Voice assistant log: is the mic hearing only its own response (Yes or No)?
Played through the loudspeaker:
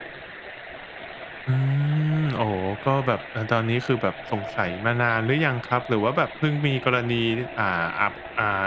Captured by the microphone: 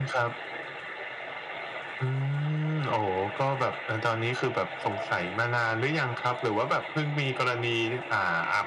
Yes